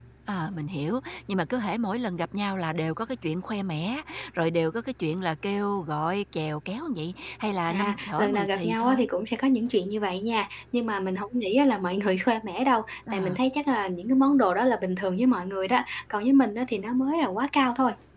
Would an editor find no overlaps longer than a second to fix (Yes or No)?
No